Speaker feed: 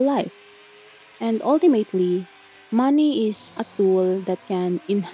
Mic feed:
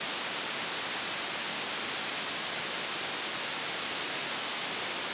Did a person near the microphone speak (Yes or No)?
No